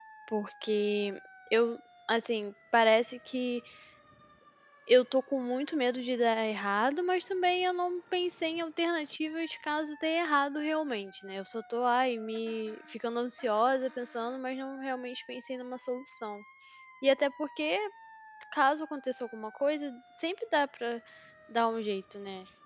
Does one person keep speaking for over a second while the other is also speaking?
No

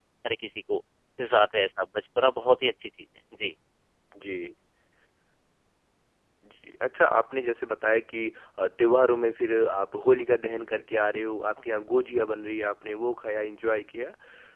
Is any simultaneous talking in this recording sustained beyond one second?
No

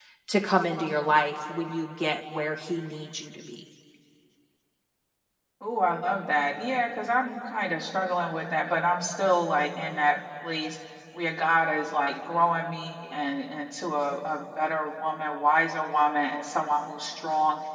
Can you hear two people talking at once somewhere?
No

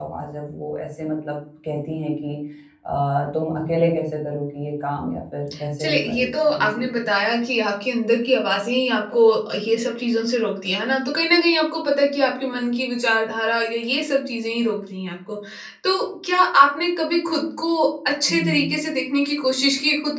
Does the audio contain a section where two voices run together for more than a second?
Yes, from 5.8 s

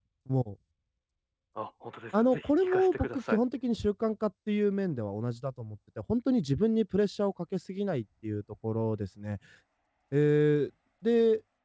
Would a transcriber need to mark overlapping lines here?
Yes, from 2.1 s

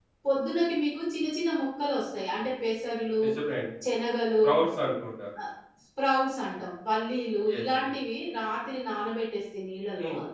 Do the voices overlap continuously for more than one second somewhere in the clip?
No

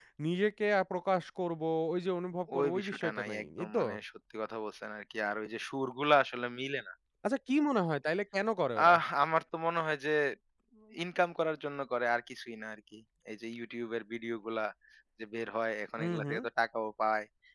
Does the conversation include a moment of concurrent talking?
Yes, from 2.6 s

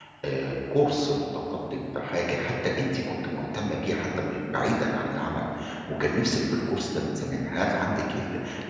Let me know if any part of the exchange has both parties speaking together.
No

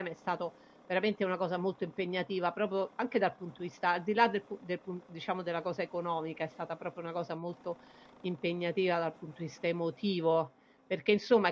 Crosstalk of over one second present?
No

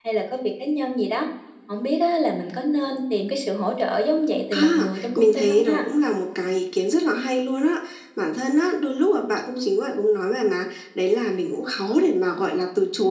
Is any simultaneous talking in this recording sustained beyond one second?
Yes, from 4.5 s

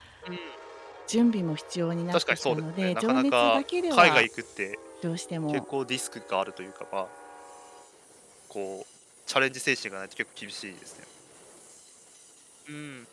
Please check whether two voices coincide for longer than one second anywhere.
Yes, from 2.1 s

